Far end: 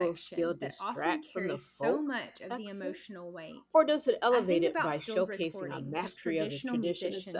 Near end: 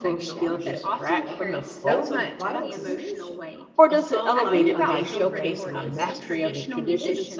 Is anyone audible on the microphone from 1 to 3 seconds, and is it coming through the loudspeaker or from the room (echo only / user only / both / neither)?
both